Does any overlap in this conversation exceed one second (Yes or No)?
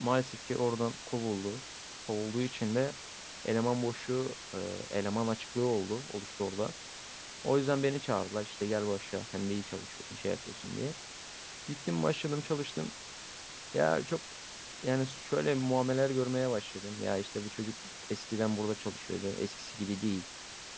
No